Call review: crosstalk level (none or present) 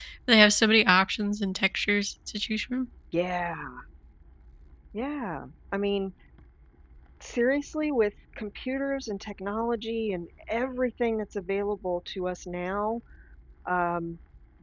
none